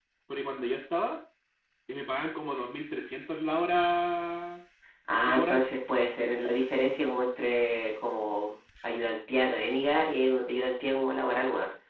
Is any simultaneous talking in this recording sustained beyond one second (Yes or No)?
No